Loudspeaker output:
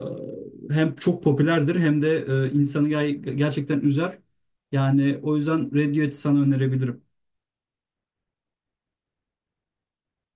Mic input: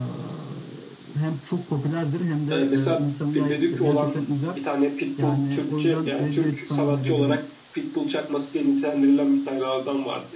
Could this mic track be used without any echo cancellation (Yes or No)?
No